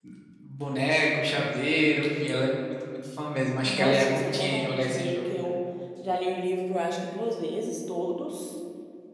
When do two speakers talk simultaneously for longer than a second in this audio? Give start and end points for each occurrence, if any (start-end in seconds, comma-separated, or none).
3.6-5.3